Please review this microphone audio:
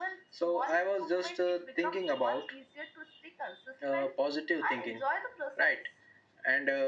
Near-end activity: none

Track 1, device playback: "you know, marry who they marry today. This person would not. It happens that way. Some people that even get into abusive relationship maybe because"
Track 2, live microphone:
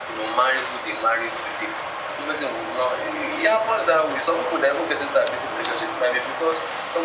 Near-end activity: none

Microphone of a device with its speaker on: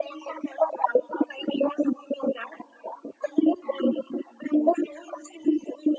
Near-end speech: none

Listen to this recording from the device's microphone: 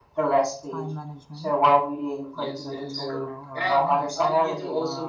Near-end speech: present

